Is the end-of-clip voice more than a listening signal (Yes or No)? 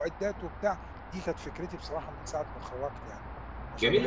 Yes